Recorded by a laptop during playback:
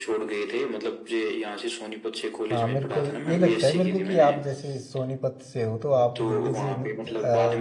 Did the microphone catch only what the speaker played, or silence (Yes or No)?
No